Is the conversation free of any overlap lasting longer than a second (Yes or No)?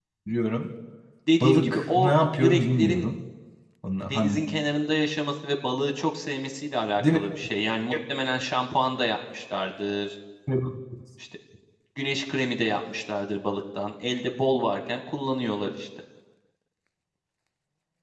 No